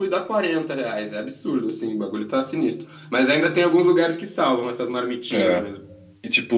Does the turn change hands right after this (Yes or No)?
Yes